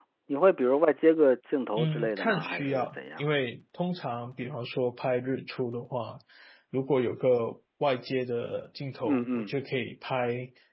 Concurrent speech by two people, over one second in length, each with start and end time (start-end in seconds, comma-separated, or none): 1.8-3.2